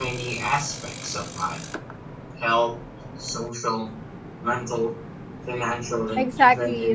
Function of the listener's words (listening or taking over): taking over